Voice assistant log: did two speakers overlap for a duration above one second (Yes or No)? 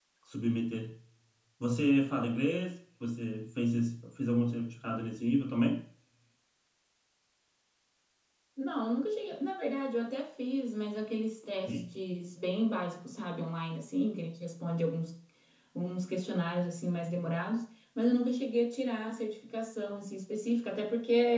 No